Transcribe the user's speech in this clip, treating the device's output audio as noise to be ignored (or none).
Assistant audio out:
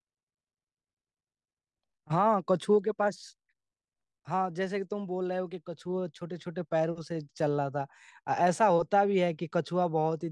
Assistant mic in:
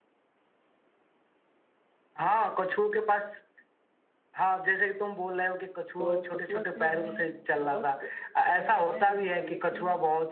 तो कछुआ से हमें बहुत संवेदनाएं लेनी चाहिए कि